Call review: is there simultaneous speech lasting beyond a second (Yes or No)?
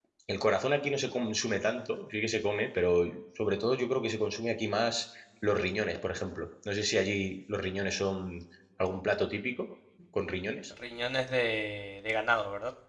No